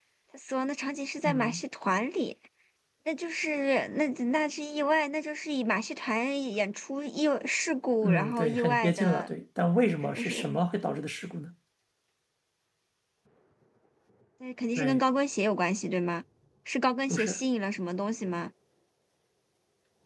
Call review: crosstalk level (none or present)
present